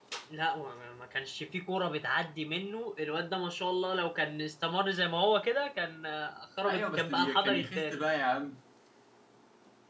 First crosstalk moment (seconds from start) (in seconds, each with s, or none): 6.7 s